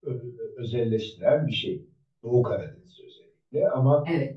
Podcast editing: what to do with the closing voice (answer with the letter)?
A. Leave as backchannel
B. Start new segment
A